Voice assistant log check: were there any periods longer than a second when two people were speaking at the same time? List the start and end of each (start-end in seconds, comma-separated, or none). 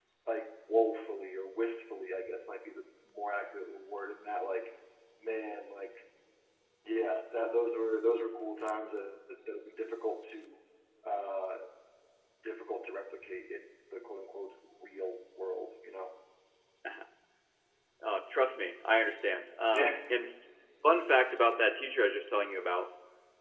none